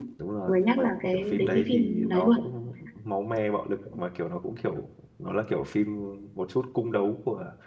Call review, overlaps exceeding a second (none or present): present